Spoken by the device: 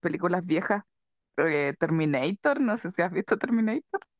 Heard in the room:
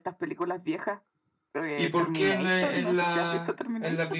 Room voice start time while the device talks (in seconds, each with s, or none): 1.7 s